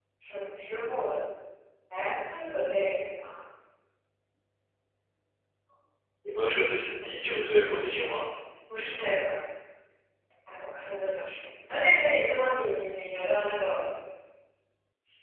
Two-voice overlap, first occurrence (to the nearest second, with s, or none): none